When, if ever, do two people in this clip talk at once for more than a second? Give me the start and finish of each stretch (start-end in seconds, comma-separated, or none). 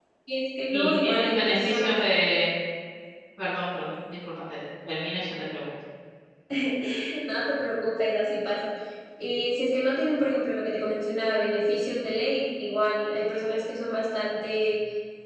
0.7-1.9